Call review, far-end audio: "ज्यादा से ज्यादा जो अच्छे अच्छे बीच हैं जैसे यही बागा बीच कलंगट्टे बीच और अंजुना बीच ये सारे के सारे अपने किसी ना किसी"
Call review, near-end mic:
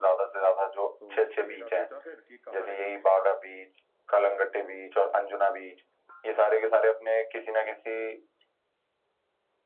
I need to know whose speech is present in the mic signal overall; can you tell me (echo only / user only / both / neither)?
both